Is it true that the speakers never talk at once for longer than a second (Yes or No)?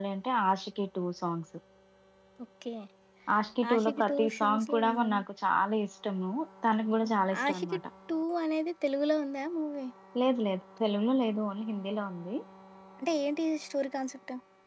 No